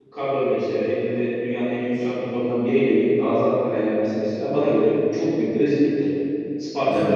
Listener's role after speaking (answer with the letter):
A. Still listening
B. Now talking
A